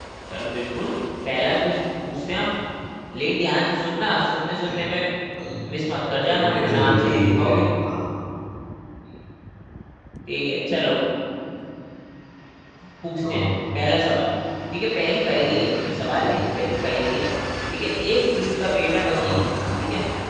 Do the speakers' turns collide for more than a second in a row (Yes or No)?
Yes